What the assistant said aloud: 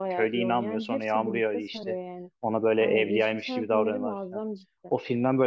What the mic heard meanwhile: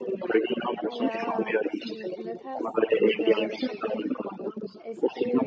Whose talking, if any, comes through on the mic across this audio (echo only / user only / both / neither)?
both